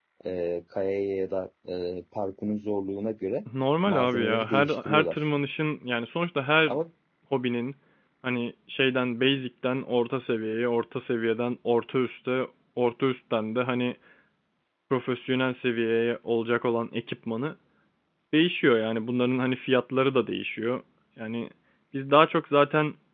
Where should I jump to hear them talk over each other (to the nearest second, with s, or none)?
4 s